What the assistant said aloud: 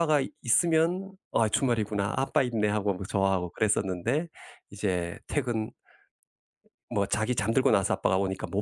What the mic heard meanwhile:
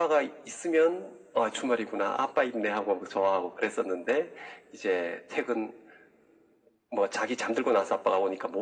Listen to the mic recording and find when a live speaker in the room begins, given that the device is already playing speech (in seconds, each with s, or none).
none